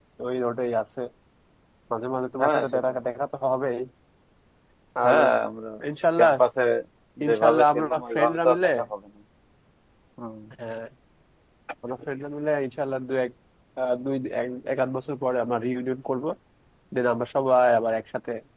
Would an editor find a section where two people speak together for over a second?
Yes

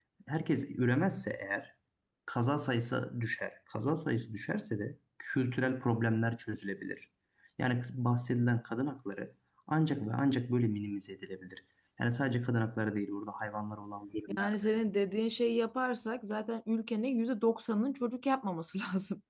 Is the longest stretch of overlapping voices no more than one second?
Yes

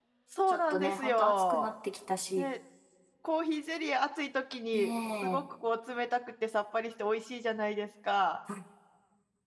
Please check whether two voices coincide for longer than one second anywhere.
Yes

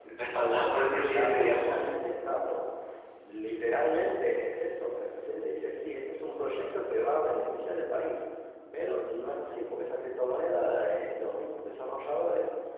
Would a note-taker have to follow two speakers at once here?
Yes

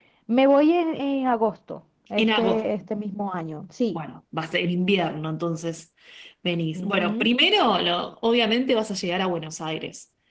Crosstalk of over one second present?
No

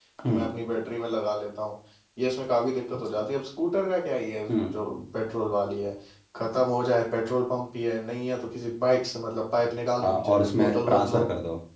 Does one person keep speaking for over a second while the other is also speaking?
Yes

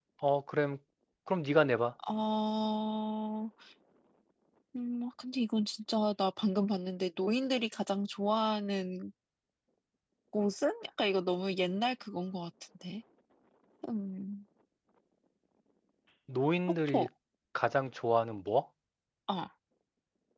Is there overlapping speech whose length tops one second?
No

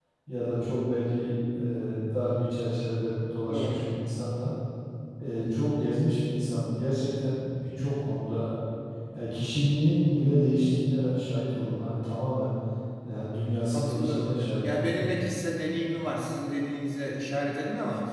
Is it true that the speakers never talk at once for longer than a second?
No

